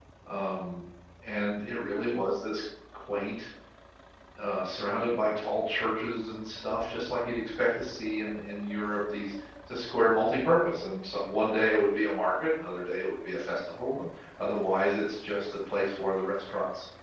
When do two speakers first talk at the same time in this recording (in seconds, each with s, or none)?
none